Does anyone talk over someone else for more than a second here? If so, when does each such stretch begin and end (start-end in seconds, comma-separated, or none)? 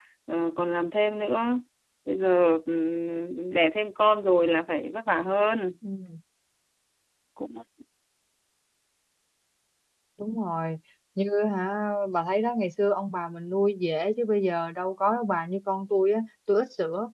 none